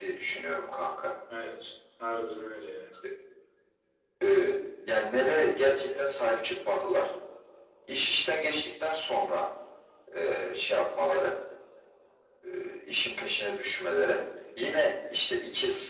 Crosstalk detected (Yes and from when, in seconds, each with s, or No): No